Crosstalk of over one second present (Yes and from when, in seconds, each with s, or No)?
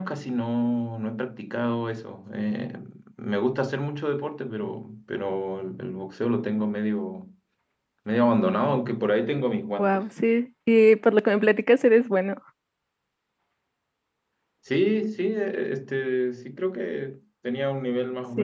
No